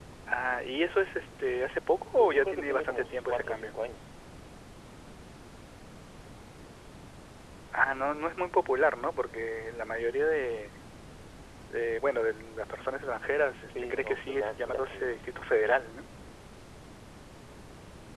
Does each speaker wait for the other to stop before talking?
No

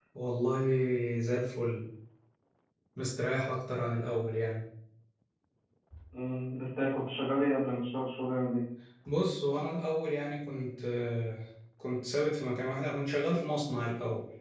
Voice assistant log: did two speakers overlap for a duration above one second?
No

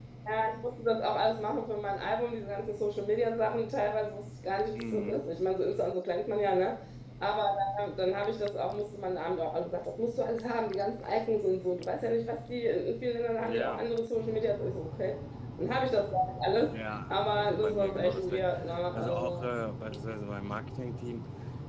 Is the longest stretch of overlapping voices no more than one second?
No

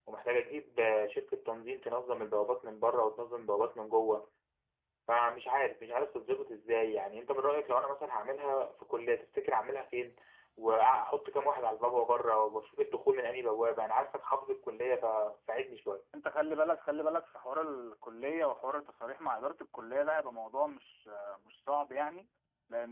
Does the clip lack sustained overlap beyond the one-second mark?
Yes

